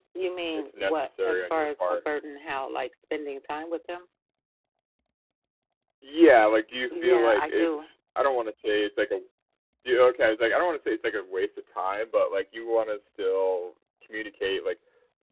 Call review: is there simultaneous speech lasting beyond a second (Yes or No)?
Yes